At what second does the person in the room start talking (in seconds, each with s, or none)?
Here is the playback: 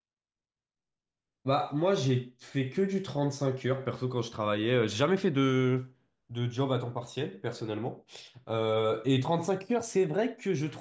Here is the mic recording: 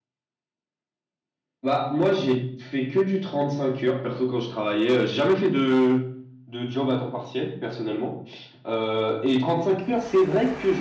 none